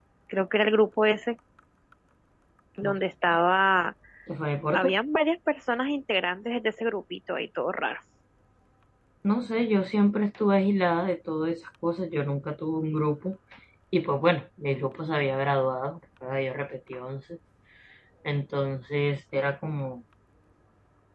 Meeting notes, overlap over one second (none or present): none